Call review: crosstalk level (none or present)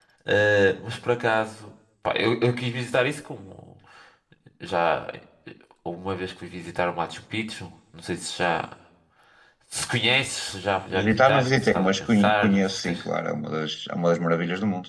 present